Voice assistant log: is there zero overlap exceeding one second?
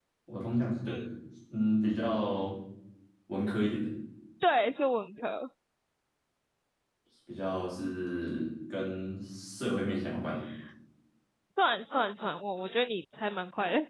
Yes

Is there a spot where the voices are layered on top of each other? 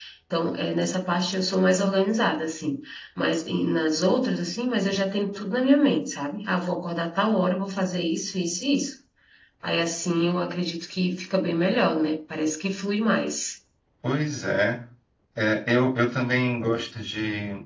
No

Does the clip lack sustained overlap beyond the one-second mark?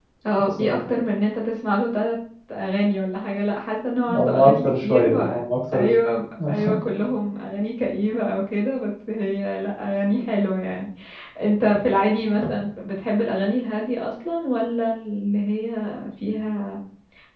No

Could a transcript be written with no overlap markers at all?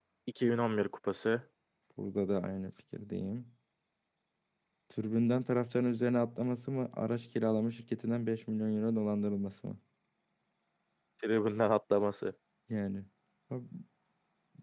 Yes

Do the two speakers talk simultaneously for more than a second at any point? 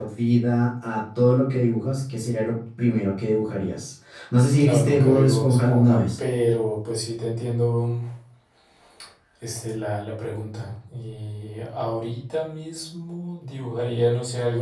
Yes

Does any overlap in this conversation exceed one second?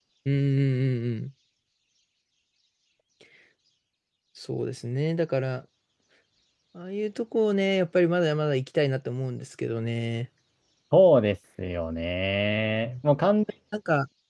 No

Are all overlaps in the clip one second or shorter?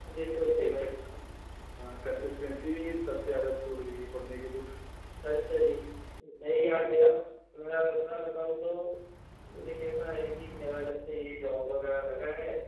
Yes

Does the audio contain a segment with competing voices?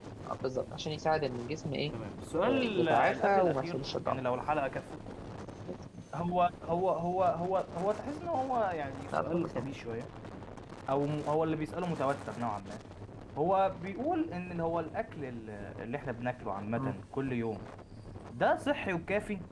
Yes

